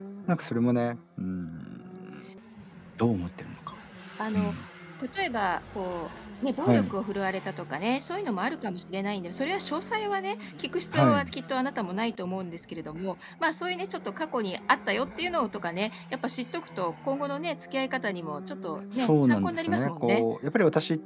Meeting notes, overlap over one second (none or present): present